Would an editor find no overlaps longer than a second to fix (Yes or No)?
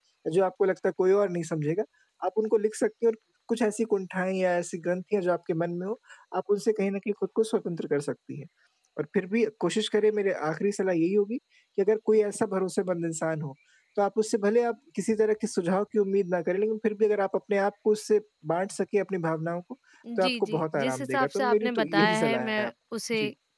No